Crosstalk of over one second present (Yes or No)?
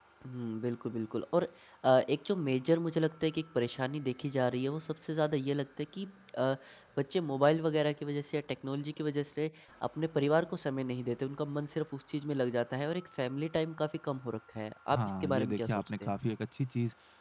Yes